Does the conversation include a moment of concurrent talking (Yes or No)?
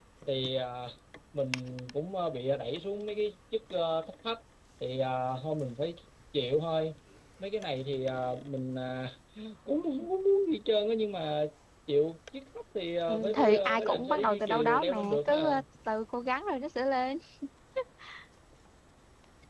Yes